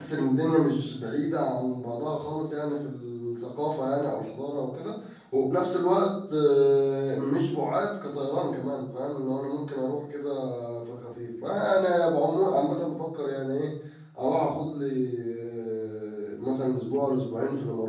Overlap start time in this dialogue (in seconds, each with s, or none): none